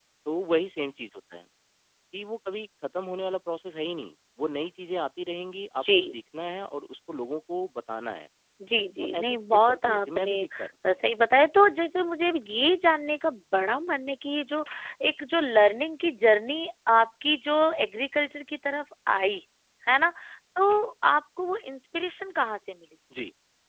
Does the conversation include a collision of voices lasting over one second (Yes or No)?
Yes